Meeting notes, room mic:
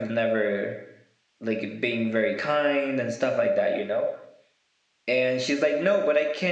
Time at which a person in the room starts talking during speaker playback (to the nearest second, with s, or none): none